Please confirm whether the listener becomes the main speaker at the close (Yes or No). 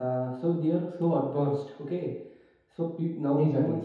No